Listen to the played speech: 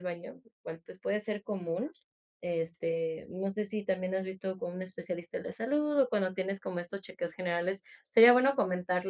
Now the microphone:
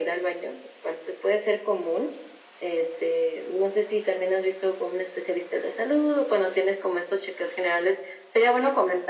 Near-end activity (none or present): none